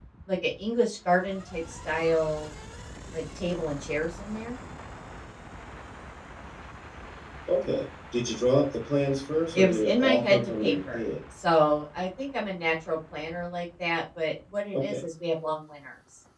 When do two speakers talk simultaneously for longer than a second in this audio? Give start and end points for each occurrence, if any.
9.6-11.0

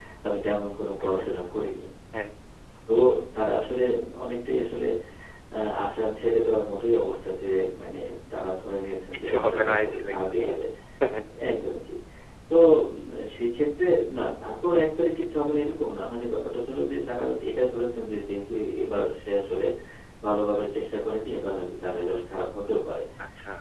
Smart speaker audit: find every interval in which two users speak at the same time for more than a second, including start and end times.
9.2-10.6

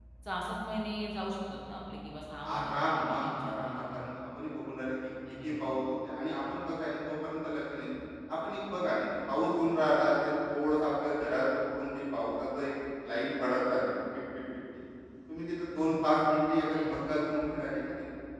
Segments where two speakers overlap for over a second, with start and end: 2.5-4.1

